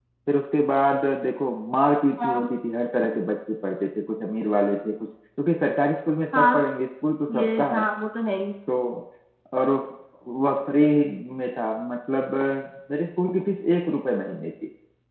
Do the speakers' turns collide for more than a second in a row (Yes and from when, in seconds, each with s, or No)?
No